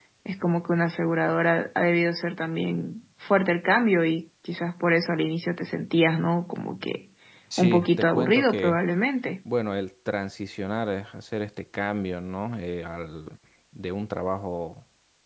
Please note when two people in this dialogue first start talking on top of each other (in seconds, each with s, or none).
7.6 s